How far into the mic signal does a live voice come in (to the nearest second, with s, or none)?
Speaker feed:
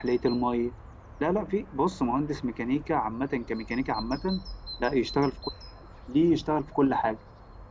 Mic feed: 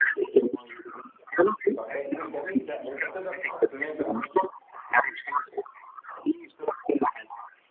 2 s